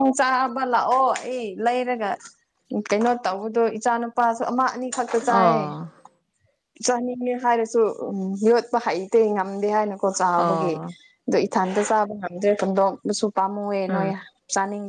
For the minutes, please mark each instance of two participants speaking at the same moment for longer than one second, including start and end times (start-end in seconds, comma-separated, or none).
none